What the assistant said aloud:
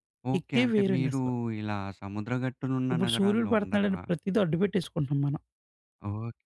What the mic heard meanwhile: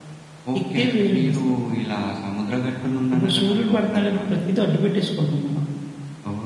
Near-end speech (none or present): none